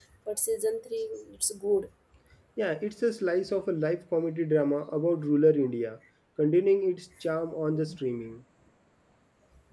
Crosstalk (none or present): none